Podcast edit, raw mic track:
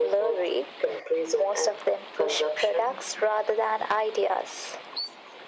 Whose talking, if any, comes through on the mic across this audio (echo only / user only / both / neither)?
echo only